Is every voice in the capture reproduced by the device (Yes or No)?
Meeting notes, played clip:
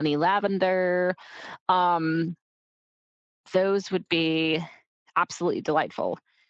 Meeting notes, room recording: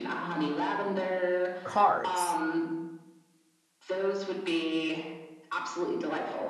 No